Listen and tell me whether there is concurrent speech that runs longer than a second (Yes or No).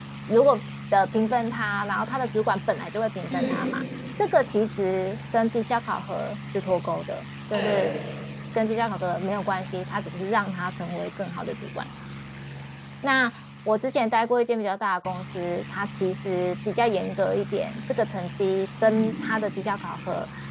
No